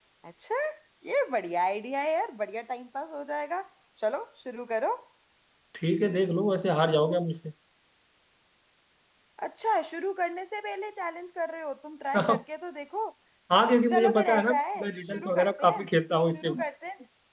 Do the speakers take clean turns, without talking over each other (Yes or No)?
No